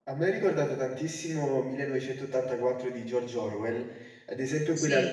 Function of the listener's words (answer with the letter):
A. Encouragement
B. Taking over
A